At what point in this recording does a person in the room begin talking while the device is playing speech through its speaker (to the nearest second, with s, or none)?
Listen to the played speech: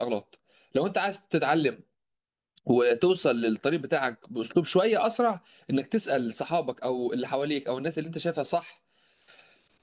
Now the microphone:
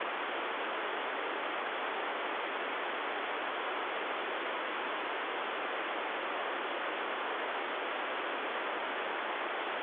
none